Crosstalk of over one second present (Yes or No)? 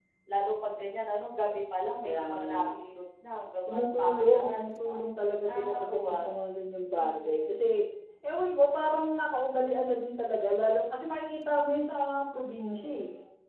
Yes